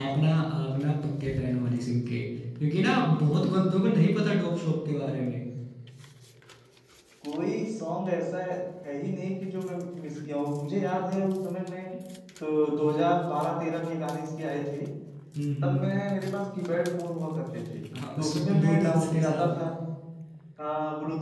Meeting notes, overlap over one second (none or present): present